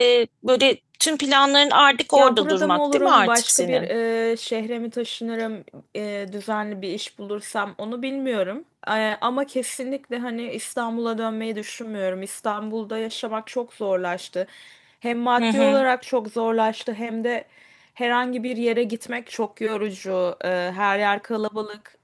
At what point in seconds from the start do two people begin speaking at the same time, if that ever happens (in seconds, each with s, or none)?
2.1 s